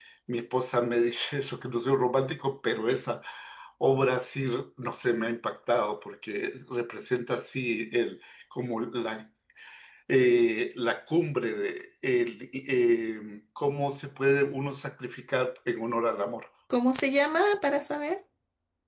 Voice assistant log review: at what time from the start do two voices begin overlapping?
none

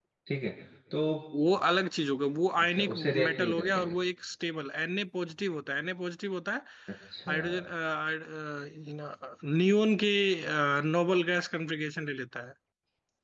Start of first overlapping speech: 2.6 s

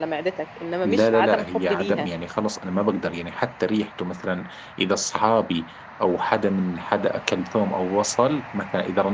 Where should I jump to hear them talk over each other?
0.8 s

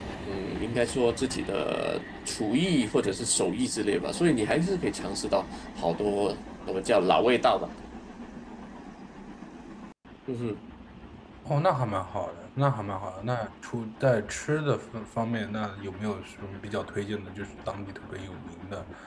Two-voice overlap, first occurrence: none

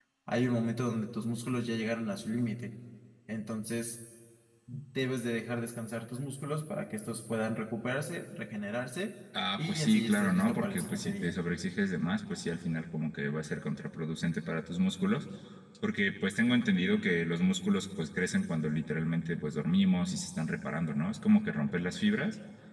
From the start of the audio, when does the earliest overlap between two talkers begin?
9.3 s

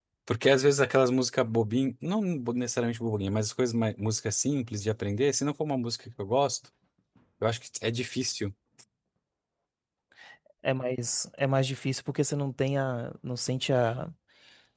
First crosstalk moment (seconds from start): none

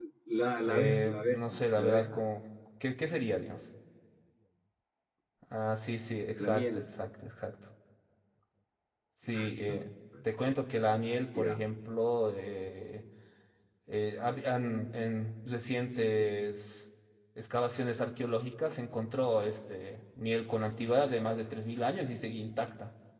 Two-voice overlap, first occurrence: 0.6 s

